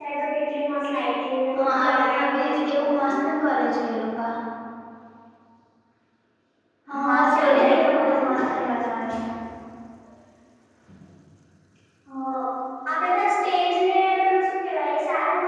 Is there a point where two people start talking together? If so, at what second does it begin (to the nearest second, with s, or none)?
2 s